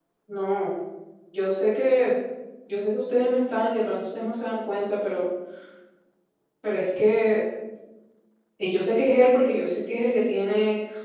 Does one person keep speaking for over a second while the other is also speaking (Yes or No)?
No